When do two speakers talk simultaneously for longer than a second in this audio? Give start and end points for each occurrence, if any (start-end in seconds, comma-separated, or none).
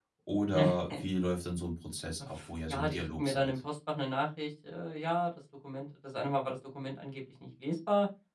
2.4-3.6